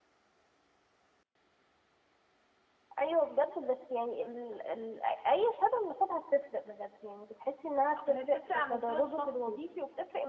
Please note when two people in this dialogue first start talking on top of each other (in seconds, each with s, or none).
8.0 s